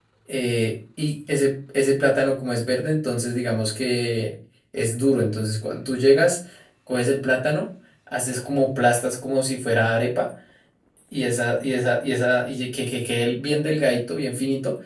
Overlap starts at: none

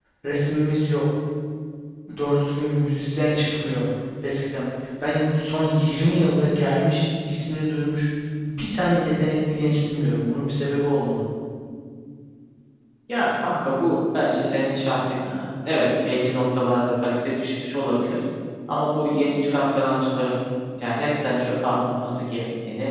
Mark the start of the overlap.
none

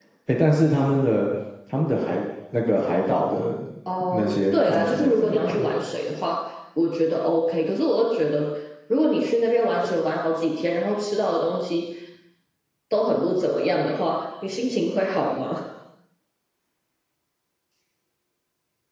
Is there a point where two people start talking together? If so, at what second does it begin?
4.1 s

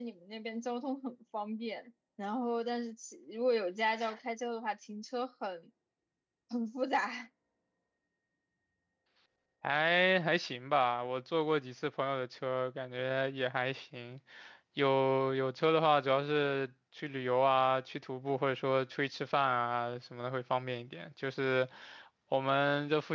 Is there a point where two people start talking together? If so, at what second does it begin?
none

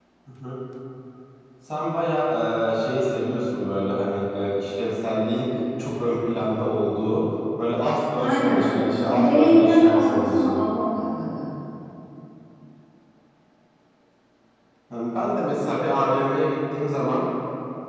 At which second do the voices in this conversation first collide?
8.2 s

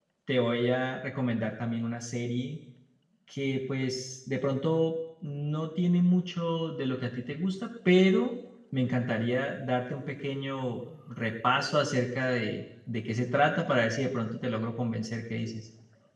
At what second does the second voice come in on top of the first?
none

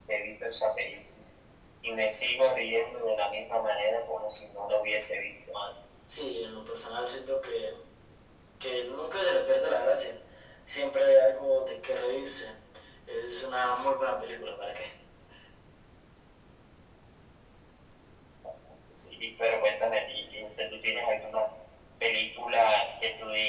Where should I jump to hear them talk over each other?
none

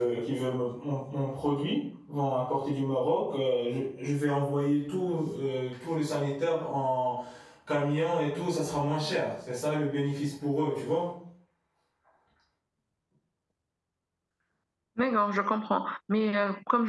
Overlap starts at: none

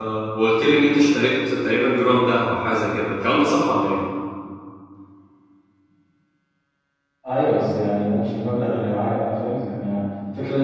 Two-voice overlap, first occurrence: none

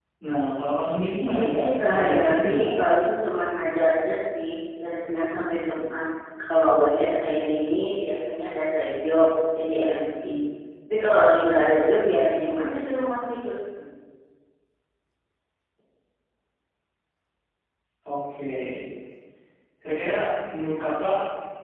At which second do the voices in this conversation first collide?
1.4 s

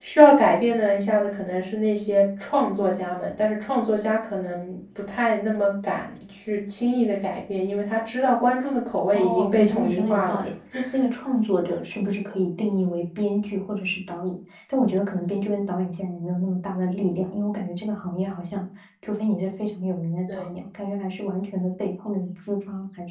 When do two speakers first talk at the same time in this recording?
9.1 s

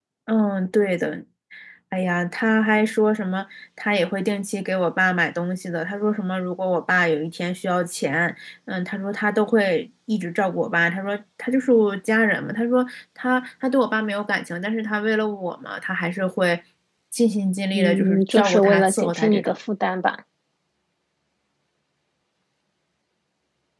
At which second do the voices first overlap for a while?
17.7 s

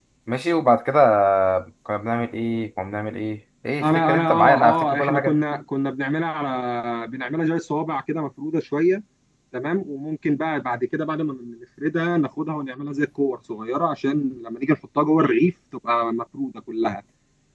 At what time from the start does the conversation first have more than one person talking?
3.8 s

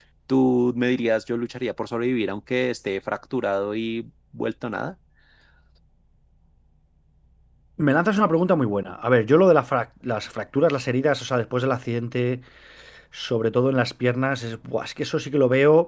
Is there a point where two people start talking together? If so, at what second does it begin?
none

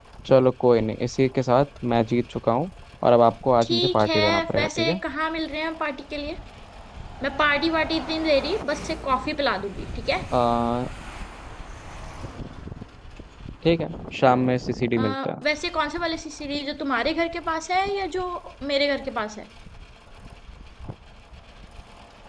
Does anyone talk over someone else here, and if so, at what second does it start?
3.6 s

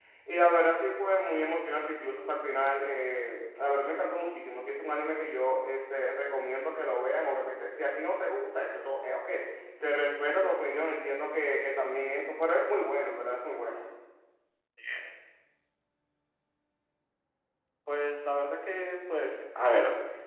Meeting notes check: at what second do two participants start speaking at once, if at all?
none

